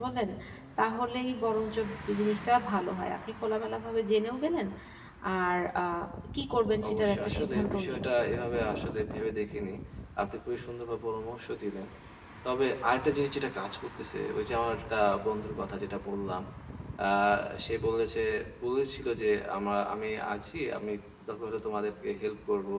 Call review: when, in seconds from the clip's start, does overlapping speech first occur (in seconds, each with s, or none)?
6.9 s